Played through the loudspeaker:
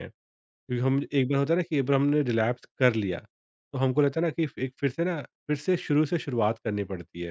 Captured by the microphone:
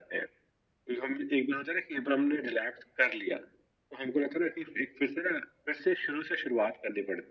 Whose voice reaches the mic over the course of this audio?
echo only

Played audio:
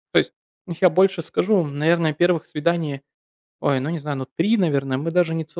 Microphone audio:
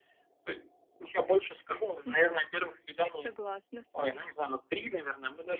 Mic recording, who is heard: both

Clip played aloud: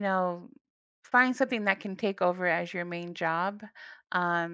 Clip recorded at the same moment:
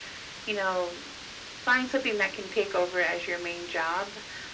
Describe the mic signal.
echo only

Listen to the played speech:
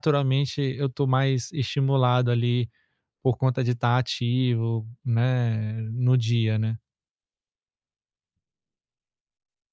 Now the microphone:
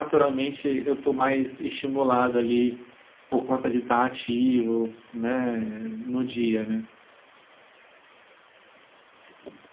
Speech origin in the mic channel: echo only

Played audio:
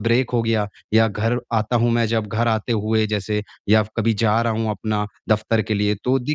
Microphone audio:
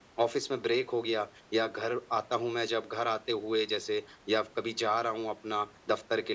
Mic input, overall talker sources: echo only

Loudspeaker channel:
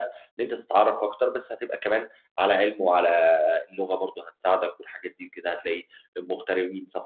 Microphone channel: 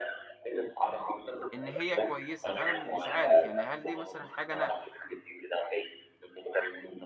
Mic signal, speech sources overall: both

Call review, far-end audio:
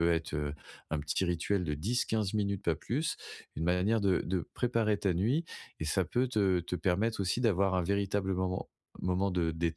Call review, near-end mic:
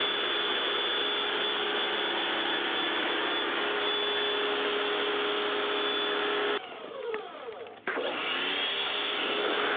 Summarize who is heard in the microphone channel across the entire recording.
neither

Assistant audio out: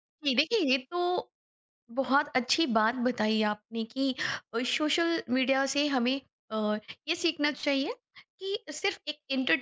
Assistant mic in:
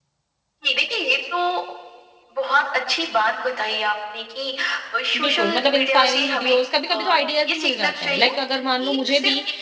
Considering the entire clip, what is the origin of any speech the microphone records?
both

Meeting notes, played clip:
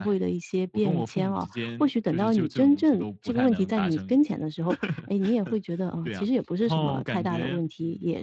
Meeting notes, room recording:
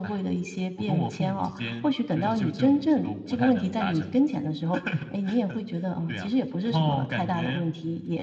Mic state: echo only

